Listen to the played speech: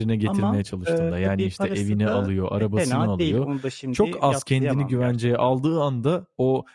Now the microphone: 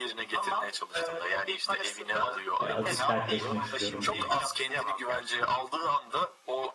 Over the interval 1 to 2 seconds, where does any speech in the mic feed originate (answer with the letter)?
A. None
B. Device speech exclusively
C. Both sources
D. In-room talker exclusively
B